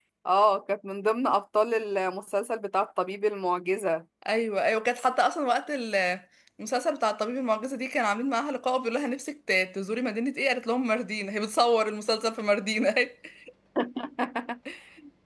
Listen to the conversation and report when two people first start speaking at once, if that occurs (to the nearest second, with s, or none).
none